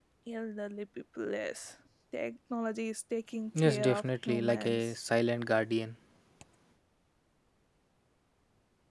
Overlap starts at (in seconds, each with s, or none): 3.5 s